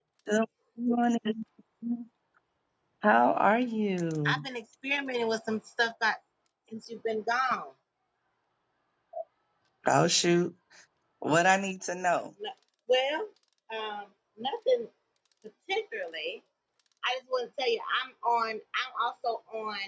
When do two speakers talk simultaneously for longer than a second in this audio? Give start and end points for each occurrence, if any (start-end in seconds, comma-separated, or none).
none